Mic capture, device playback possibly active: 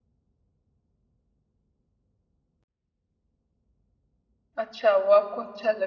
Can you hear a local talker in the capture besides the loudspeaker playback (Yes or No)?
Yes